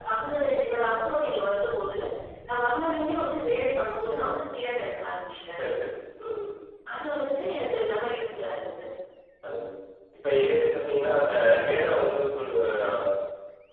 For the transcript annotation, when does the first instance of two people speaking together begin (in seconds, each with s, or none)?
none